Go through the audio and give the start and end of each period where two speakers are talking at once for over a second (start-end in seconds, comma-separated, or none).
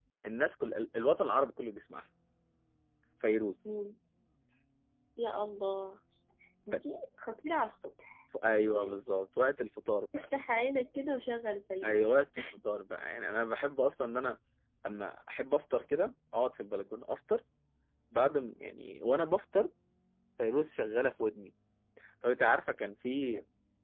none